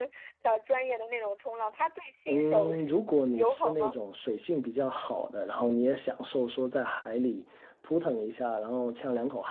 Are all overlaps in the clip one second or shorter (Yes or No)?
No